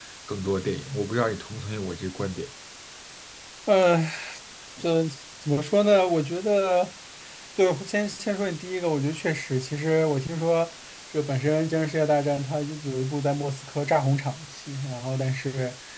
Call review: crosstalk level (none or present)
none